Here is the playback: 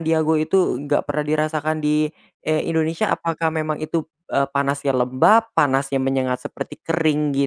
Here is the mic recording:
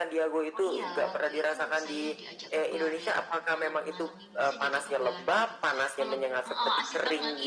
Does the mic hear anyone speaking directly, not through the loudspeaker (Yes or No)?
Yes